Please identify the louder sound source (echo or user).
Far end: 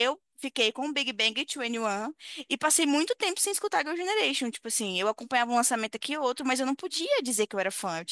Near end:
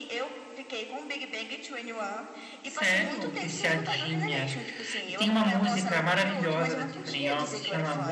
user